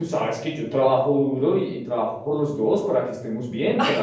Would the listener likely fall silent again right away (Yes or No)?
No